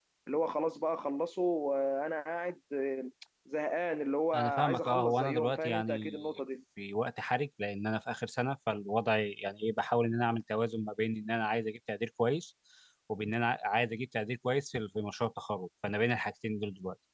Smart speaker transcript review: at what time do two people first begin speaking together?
4.3 s

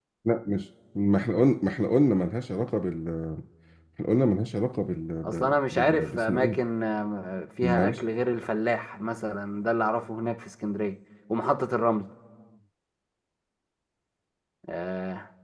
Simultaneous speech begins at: 5.2 s

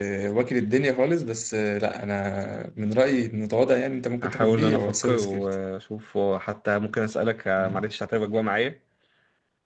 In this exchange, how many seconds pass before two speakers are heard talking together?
4.2 s

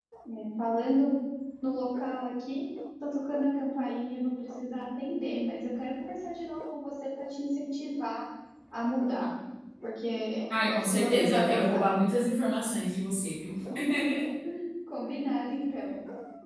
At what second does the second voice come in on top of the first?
10.6 s

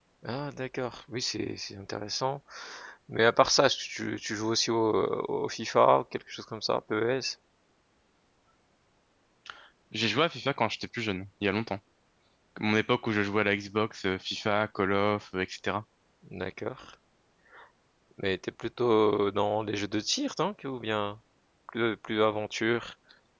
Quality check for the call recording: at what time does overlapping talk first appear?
none

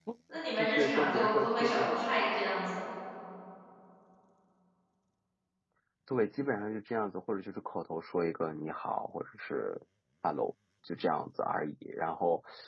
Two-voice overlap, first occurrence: 0.6 s

